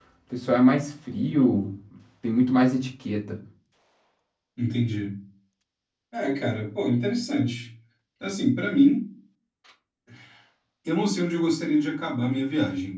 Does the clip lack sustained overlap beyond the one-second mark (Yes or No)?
Yes